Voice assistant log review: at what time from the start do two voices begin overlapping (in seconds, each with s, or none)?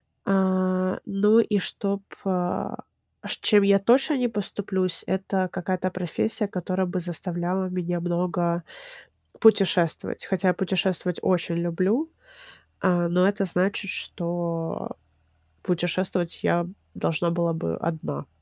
none